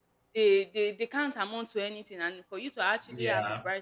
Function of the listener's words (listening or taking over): listening